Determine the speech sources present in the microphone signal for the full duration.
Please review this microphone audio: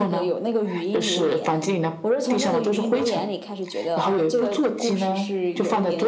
echo only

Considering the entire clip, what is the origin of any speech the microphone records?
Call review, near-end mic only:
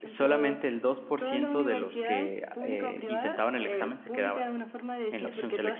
both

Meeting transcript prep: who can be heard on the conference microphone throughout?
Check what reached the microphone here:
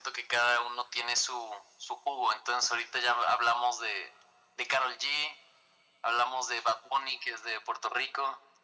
echo only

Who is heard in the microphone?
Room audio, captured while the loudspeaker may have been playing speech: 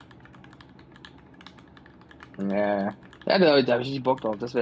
user only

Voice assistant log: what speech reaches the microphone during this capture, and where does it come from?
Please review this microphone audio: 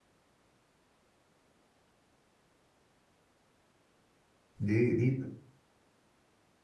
user only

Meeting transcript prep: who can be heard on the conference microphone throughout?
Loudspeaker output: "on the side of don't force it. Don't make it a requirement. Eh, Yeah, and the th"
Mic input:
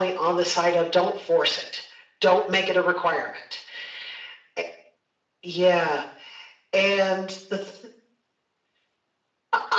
echo only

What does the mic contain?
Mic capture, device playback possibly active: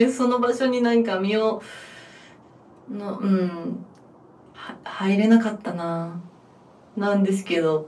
echo only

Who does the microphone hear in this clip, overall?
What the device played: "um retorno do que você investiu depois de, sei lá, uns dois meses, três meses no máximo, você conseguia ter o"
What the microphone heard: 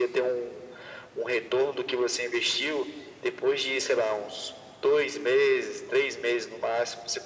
echo only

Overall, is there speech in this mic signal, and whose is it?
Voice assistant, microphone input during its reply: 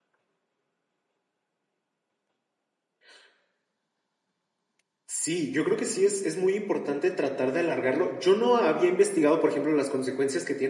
user only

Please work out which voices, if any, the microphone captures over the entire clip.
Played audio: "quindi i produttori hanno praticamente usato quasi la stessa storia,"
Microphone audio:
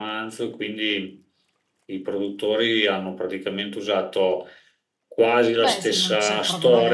both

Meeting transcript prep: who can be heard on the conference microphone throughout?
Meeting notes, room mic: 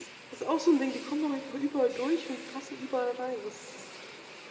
user only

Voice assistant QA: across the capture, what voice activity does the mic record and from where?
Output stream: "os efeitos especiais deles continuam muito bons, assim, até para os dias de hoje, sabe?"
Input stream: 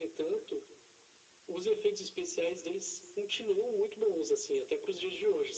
echo only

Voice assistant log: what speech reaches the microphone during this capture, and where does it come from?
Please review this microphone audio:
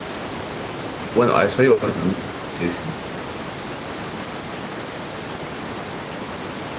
user only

